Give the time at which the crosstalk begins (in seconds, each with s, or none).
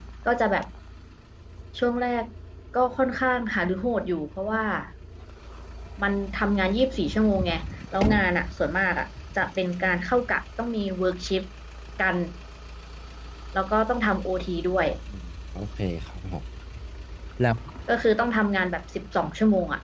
none